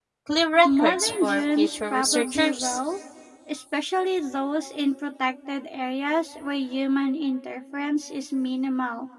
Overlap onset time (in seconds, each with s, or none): 0.6 s